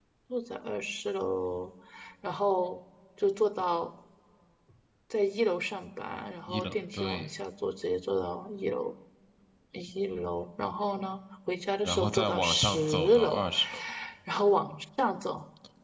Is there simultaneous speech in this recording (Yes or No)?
Yes